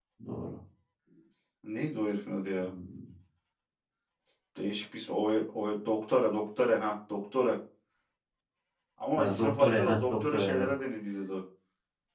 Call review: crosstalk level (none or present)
present